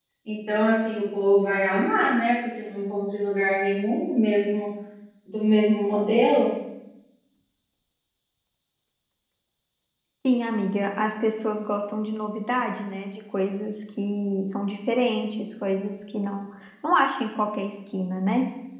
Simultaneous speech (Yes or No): No